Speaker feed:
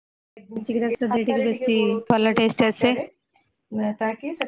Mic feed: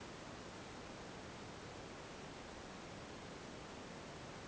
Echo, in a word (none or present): none